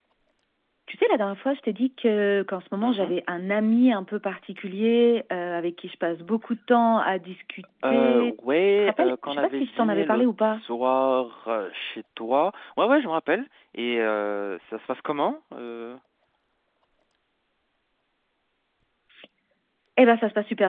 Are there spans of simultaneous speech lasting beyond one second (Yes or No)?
Yes